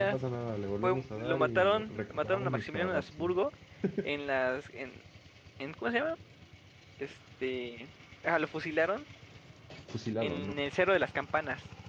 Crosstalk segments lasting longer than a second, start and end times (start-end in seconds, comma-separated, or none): 0.8-3.2